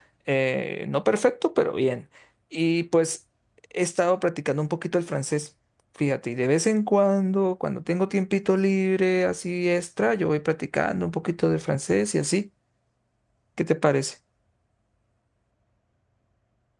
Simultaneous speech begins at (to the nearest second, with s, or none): none